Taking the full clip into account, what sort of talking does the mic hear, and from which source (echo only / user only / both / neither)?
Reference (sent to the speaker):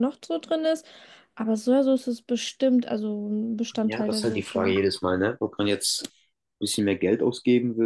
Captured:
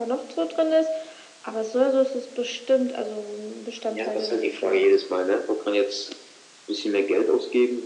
echo only